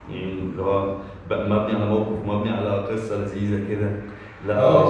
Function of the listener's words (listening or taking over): taking over